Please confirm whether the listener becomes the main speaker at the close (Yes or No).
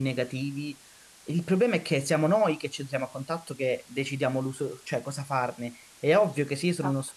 No